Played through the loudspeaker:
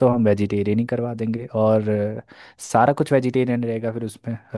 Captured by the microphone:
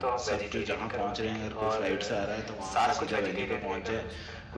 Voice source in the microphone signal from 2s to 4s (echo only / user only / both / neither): both